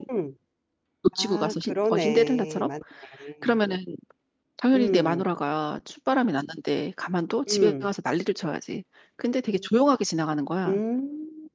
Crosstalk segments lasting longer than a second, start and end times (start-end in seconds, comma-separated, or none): 1.2-2.7